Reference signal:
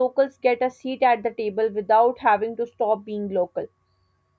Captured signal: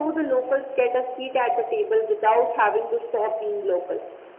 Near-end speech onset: none

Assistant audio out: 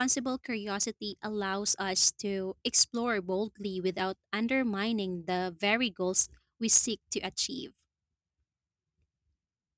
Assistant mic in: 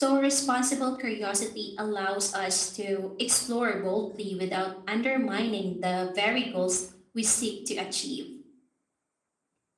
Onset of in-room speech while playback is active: none

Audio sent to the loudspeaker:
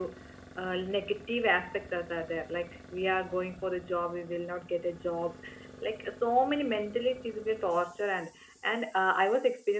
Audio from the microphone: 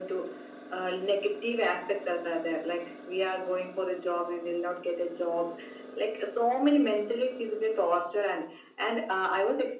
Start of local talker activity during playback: none

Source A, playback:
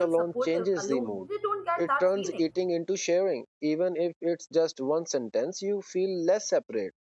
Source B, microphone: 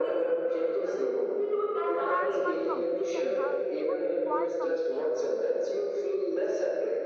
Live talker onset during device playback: 2.0 s

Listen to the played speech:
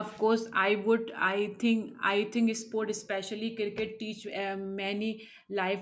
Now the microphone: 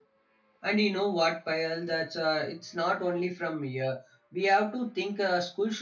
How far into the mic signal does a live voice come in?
0.6 s

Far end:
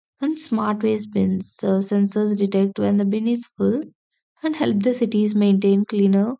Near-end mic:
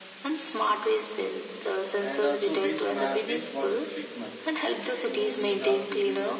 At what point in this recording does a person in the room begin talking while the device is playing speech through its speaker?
2.0 s

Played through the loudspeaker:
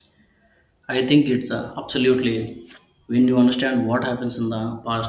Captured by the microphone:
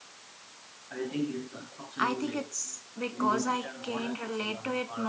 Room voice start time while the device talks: 2.0 s

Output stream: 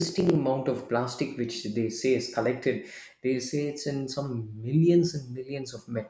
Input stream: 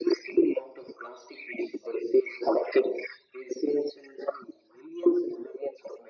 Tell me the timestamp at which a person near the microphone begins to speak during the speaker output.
none

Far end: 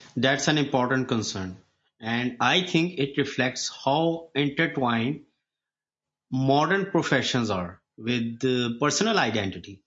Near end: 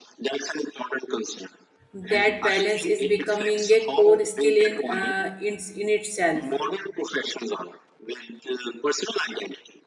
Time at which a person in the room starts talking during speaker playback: 1.9 s

